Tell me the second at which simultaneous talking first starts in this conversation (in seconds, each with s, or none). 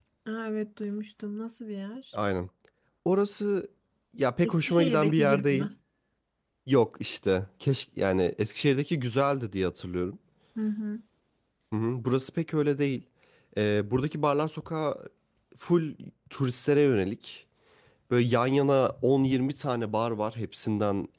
4.4 s